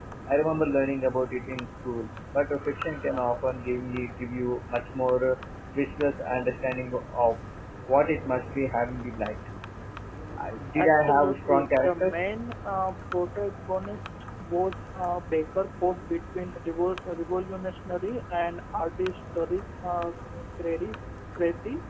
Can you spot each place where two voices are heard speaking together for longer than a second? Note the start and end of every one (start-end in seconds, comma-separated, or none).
10.8-12.1